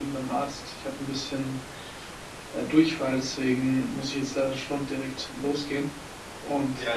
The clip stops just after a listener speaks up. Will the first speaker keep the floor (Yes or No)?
No